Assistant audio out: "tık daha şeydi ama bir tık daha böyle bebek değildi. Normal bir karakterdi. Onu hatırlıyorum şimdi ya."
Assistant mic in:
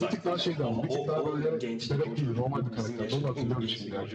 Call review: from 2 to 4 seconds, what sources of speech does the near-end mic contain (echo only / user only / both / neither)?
both